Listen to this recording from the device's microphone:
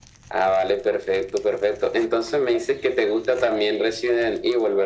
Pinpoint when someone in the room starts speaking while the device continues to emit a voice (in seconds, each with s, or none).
none